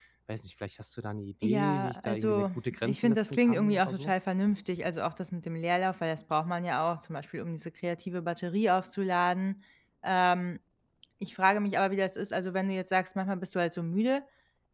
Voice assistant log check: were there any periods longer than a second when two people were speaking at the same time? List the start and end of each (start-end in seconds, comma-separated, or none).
1.4-4.1